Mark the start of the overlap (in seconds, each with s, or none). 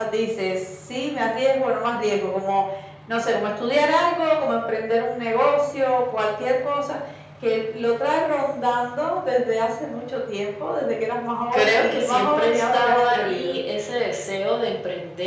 11.5 s